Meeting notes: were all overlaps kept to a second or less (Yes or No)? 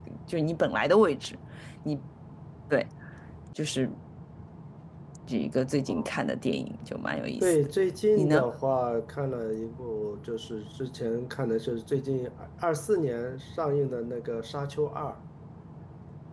Yes